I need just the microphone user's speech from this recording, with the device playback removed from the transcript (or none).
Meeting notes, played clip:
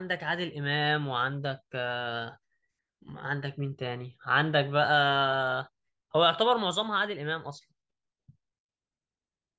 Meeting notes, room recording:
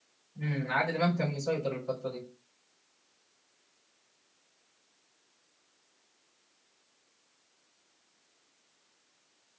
امم عادل إمام كان مسيطر الفترة دي